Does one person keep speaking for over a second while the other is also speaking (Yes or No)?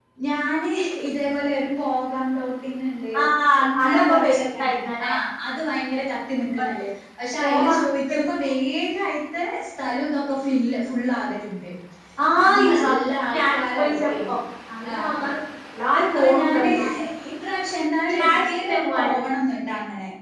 Yes